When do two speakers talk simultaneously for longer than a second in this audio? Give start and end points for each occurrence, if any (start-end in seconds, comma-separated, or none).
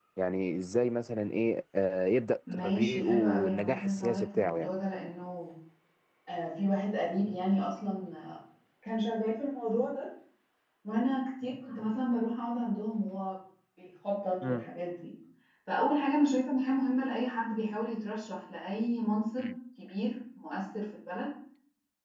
2.5-4.7